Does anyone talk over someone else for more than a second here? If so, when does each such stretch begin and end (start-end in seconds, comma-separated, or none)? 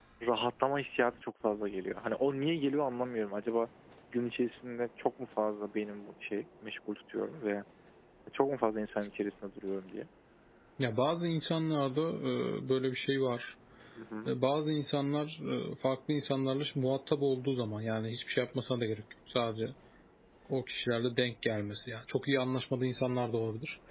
none